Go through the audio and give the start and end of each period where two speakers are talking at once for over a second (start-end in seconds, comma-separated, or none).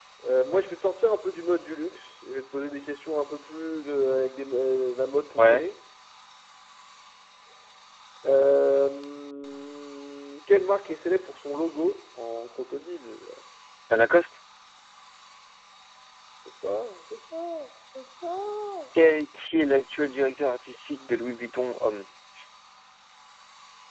none